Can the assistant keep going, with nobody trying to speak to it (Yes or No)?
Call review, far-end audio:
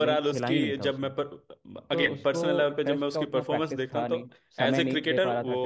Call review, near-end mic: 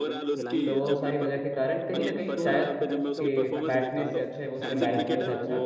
No